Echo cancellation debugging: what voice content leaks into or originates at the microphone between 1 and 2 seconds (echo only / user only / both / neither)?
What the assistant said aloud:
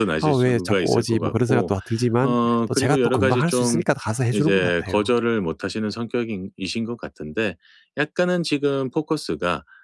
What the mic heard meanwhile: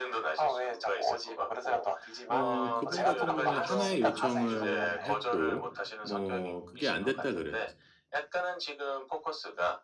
echo only